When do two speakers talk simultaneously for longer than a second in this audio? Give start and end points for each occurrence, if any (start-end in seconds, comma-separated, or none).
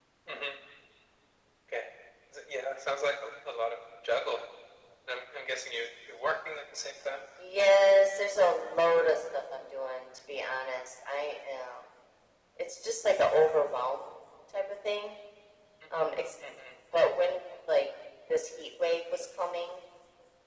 none